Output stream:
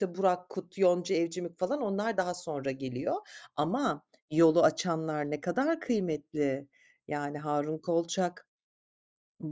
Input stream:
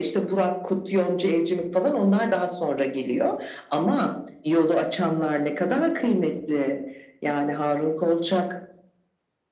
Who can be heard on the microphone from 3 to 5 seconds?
echo only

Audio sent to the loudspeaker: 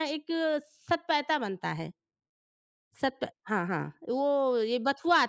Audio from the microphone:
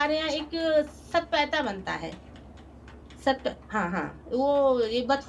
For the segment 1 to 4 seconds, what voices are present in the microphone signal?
echo only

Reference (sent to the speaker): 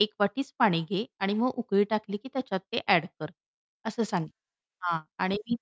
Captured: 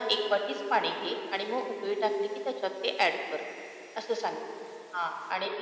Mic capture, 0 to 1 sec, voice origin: echo only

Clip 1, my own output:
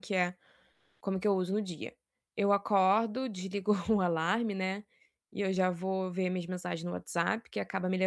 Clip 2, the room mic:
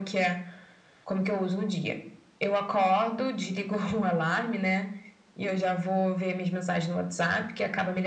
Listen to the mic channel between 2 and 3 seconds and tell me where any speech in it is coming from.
echo only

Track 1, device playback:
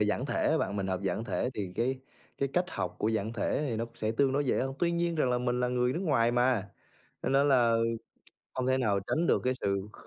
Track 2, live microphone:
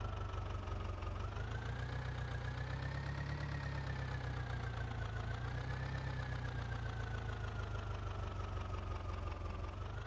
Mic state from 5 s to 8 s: neither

